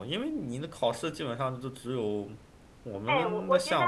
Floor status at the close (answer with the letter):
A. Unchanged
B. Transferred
B